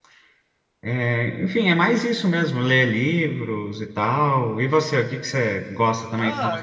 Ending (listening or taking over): taking over